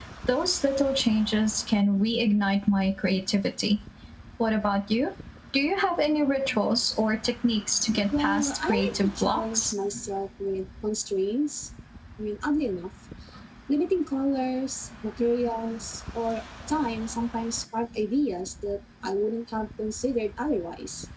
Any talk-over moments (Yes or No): Yes